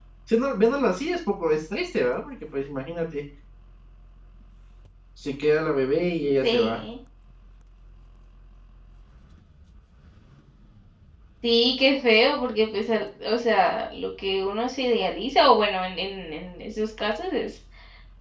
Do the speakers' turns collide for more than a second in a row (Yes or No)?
No